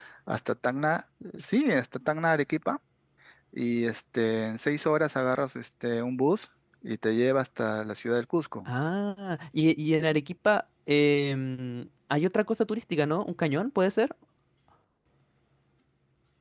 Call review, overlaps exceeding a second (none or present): none